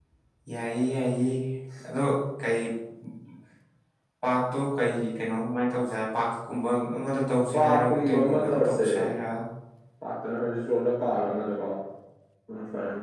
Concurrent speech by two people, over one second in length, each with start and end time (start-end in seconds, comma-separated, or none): 7.5-8.8